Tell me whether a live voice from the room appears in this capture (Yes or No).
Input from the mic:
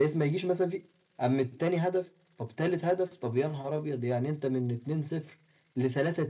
No